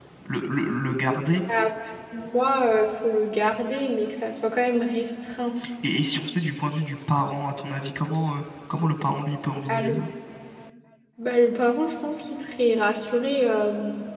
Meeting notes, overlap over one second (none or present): none